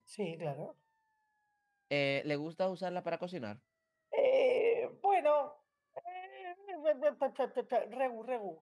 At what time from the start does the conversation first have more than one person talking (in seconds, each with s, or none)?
none